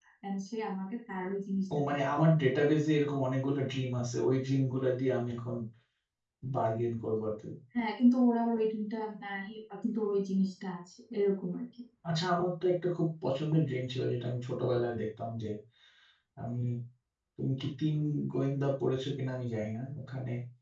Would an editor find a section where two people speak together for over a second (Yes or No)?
No